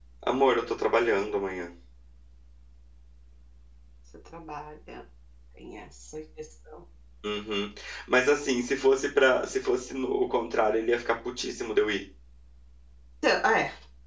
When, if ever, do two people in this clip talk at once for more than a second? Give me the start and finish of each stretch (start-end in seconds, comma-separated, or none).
none